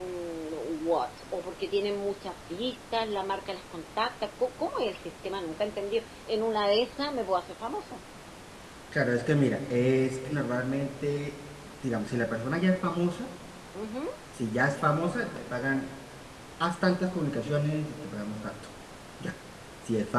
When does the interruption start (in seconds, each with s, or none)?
none